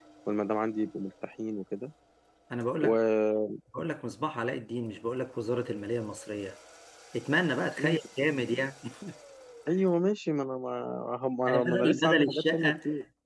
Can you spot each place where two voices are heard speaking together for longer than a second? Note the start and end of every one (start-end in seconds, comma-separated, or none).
11.5-12.7